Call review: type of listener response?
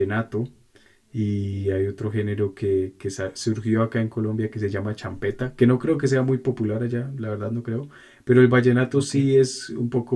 listening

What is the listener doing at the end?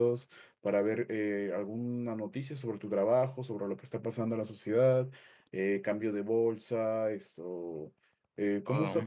listening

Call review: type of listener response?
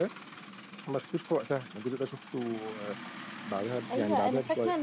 taking over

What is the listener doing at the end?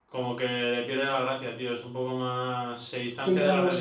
taking over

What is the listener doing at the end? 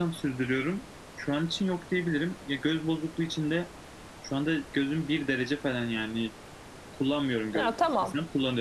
listening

